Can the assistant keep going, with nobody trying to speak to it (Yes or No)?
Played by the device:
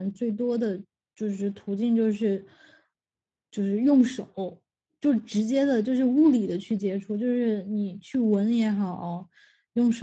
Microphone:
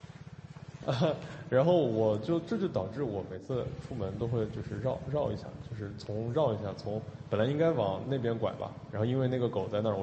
No